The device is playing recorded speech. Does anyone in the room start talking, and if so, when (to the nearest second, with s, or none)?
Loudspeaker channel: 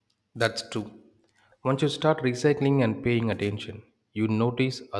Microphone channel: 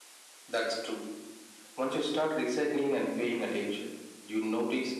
none